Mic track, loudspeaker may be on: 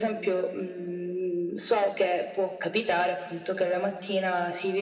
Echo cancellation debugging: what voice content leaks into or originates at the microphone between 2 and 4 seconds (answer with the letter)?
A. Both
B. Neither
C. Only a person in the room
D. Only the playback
D